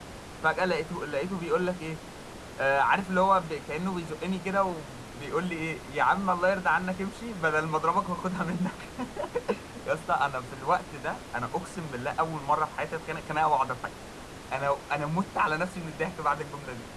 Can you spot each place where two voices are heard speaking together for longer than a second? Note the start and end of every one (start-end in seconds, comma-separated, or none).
none